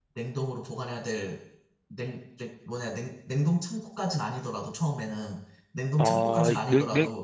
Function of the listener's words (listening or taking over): taking over